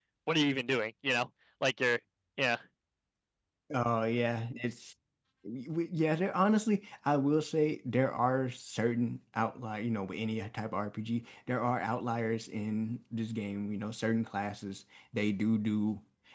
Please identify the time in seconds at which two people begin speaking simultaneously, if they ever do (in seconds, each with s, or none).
none